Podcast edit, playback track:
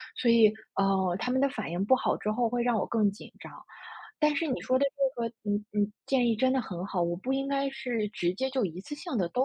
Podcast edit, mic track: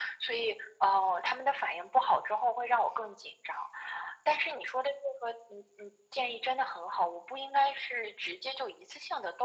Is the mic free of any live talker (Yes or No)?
Yes